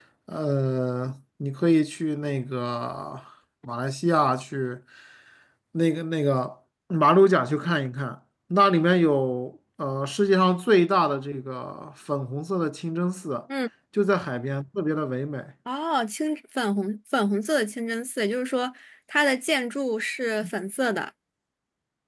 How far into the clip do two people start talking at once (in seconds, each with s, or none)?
none